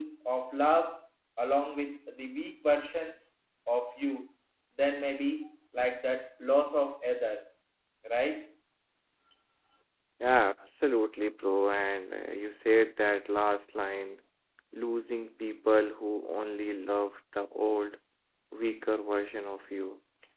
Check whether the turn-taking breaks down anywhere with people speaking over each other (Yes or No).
No